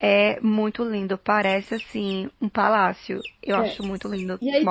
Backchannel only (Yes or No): No